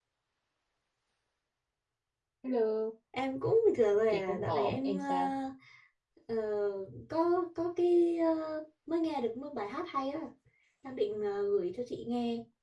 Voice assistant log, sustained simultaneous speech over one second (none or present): present